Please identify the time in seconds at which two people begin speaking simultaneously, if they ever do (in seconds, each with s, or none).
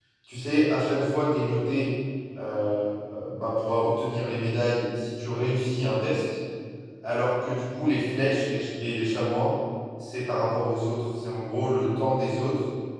none